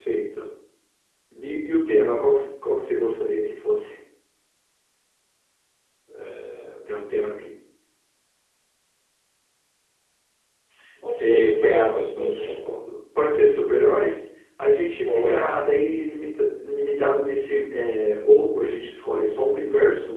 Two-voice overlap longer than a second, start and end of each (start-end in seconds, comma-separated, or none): 11.0-12.7